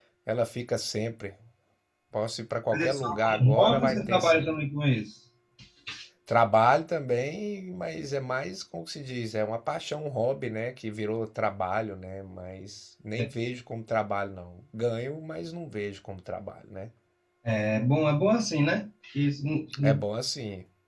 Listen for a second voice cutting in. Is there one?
Yes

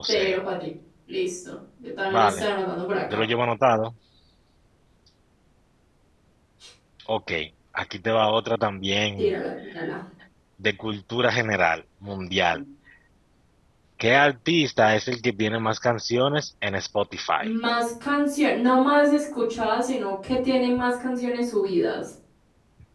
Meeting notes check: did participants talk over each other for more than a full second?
No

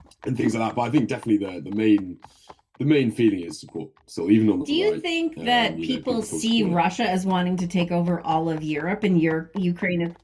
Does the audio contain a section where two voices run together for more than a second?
Yes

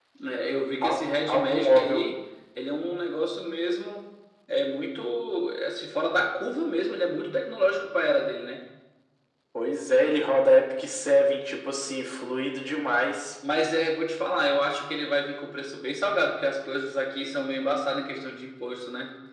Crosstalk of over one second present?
Yes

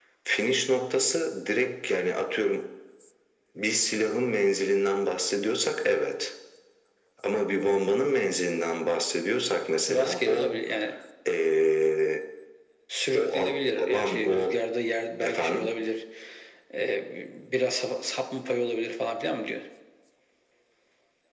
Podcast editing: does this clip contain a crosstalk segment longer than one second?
Yes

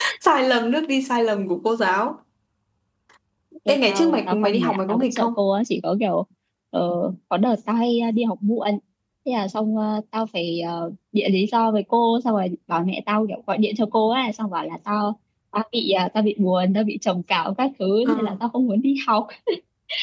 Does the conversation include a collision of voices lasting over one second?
Yes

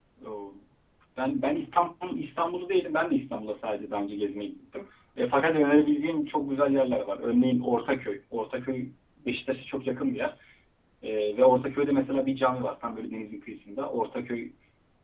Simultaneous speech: No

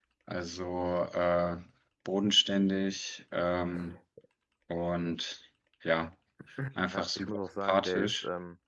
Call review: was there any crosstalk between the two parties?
Yes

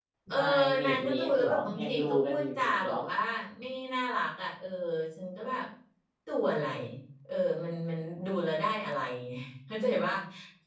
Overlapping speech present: Yes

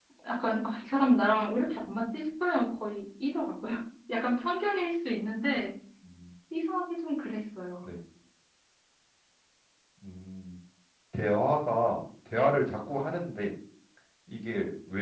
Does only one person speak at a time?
Yes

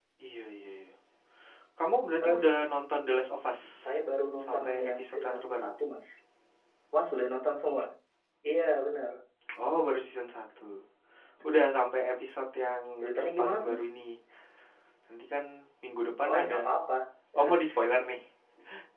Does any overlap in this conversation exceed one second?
Yes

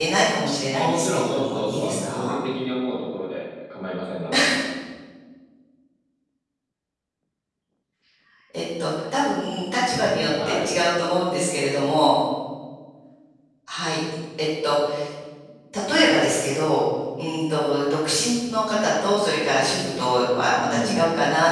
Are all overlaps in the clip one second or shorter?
No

